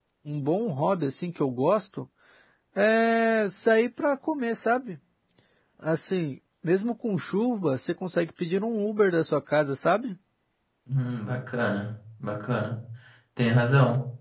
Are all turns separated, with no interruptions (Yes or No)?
Yes